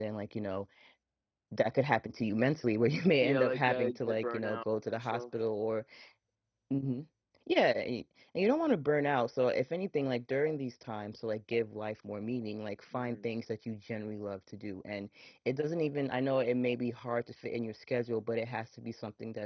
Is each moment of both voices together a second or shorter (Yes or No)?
No